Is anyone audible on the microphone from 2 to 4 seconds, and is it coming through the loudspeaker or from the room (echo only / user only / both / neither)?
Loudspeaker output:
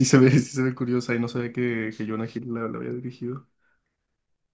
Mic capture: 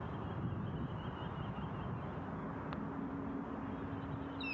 neither